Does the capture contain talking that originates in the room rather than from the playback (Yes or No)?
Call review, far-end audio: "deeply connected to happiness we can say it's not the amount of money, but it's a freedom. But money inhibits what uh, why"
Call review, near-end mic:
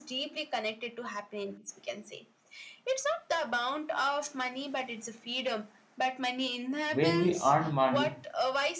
Yes